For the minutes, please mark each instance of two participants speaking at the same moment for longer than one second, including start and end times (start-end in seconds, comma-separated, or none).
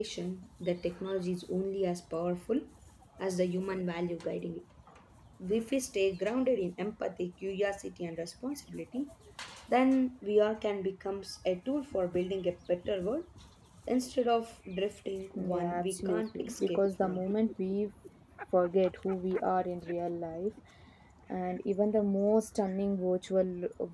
15.4-17.2